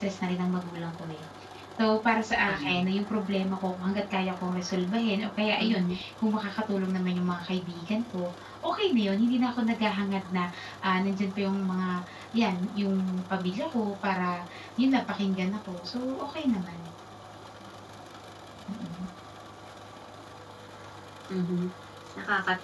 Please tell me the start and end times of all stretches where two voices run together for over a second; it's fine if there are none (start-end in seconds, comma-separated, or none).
none